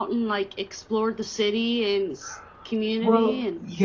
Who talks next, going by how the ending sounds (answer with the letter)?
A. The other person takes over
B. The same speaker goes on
A